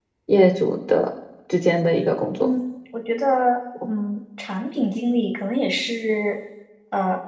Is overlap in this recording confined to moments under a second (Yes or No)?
Yes